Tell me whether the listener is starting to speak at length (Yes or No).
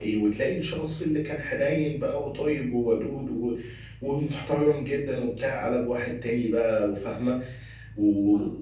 No